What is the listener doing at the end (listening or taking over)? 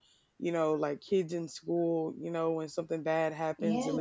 listening